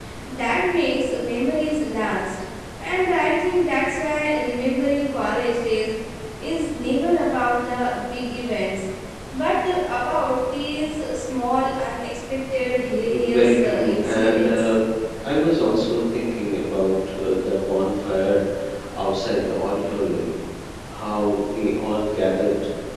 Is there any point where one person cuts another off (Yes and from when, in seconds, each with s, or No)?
Yes, from 13.1 s